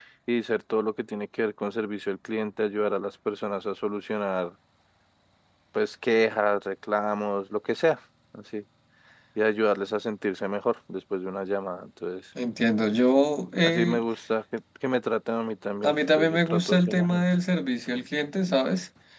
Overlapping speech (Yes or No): Yes